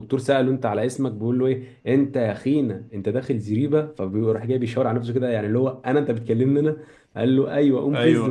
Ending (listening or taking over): listening